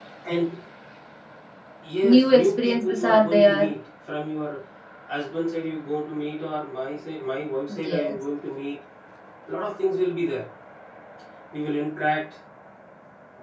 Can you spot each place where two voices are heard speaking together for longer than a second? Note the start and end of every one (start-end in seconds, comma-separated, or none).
2.0-3.7